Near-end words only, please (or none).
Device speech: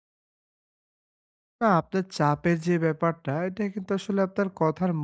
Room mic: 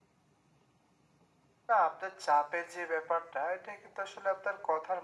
none